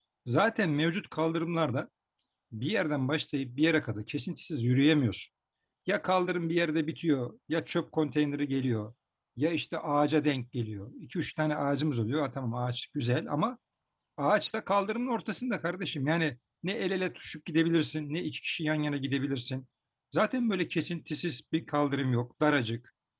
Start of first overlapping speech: none

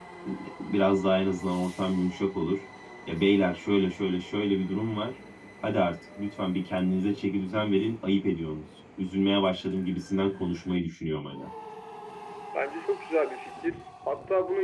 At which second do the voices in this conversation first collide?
none

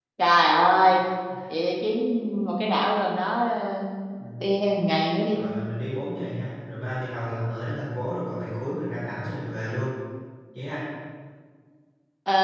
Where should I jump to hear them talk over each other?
none

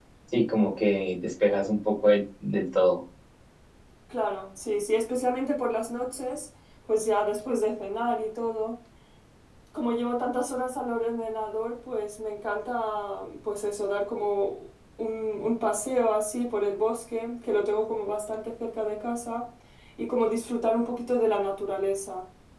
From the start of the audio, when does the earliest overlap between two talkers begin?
none

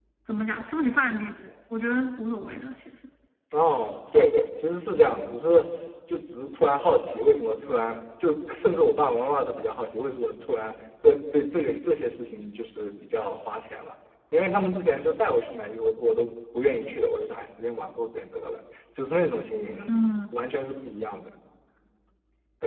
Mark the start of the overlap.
none

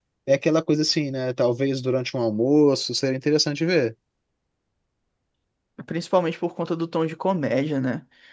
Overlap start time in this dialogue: none

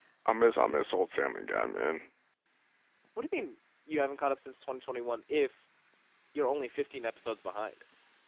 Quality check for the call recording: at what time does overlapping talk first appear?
none

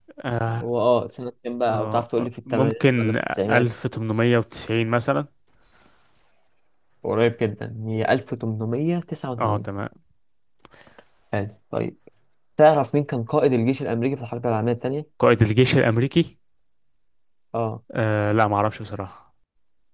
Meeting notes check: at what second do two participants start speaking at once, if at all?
1.7 s

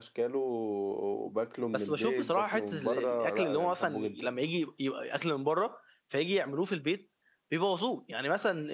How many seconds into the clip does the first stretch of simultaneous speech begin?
1.7 s

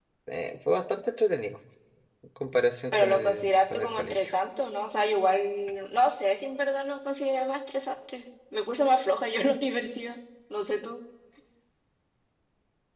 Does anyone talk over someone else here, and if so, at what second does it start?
2.9 s

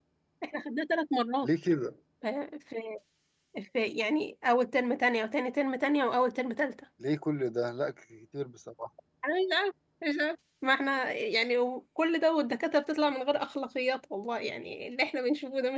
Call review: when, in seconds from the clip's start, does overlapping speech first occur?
none

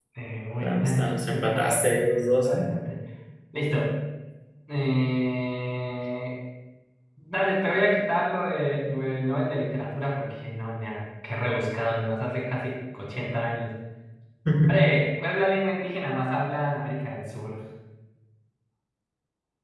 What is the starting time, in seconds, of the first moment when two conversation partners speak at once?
0.6 s

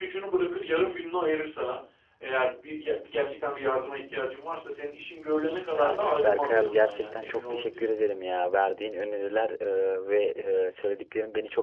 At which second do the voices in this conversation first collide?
5.7 s

